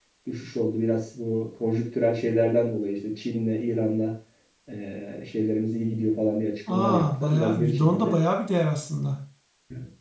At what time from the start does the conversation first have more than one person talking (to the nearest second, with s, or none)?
7 s